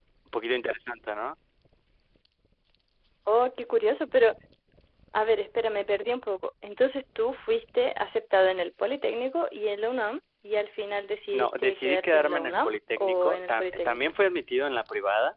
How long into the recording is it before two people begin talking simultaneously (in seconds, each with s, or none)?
11.3 s